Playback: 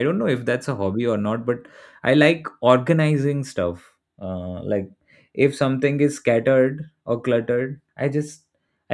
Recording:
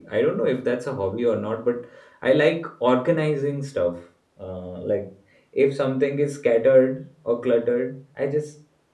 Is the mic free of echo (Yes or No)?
No